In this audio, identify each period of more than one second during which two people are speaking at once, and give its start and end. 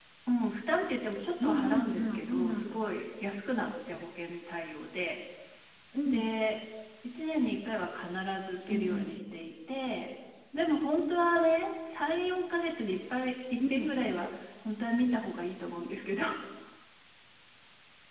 1.4-2.8

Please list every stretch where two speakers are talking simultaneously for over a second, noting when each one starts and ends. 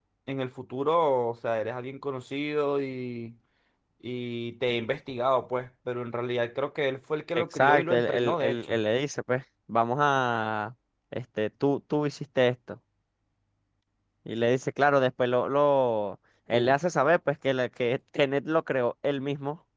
7.3-8.8

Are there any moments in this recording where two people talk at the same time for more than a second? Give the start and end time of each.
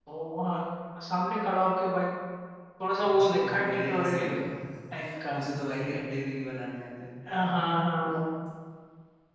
3.0-4.3

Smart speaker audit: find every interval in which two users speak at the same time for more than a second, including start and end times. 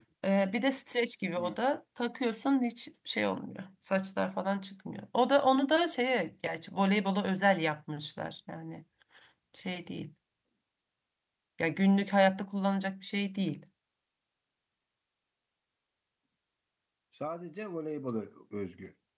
none

